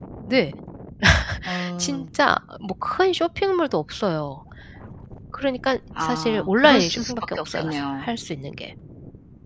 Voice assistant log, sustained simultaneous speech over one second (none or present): present